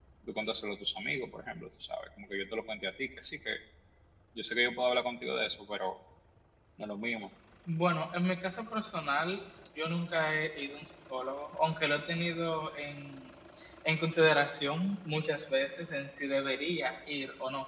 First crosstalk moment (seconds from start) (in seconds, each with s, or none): none